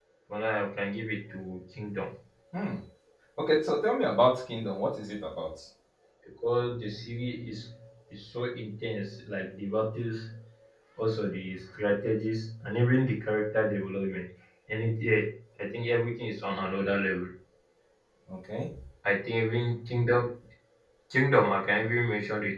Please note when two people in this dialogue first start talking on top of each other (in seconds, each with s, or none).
none